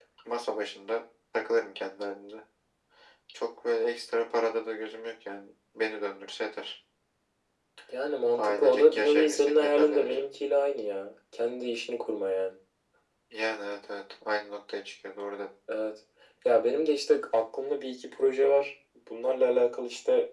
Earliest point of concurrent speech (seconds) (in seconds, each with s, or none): 8.4 s